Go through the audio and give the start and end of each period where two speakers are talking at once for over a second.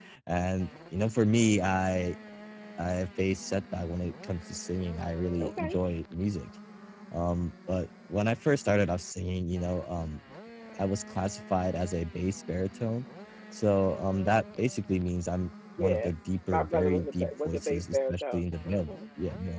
16.5-18.9

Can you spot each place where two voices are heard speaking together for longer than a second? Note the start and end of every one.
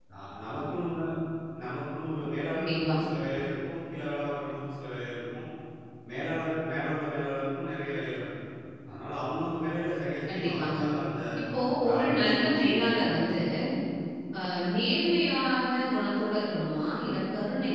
11.8-13.0

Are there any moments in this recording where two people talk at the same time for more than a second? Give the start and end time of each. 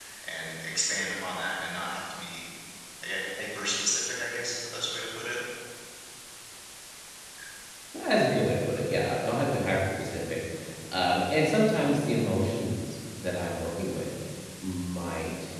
none

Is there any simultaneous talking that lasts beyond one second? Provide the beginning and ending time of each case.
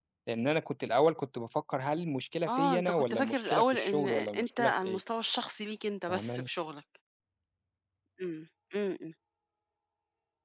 2.5-5.0

